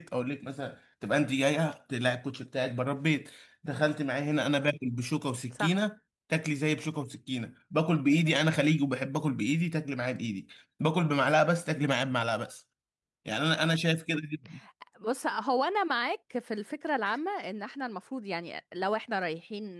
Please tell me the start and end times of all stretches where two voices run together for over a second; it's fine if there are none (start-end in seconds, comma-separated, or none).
none